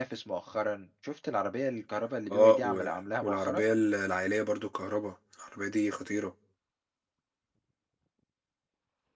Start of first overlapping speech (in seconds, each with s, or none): 2.3 s